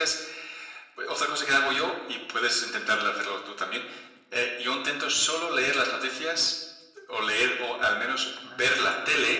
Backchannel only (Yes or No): Yes